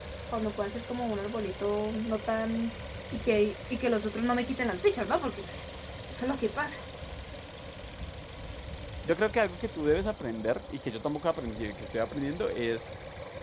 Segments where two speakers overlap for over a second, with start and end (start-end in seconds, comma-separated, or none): none